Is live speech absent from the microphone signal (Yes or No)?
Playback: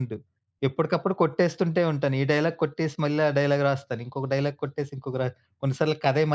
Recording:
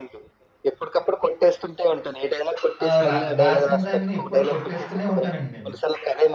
No